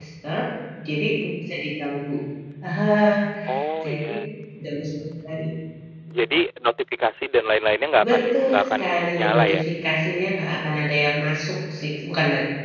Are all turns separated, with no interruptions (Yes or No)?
No